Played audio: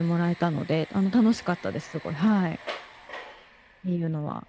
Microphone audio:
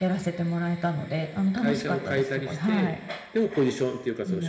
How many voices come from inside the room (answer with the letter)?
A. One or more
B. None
A